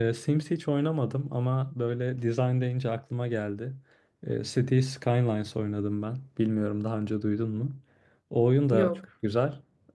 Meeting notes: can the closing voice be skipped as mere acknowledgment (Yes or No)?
Yes